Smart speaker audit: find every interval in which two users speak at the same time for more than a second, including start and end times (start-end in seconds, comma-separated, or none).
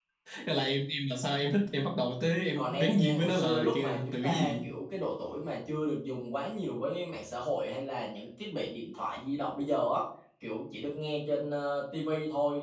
2.6-4.7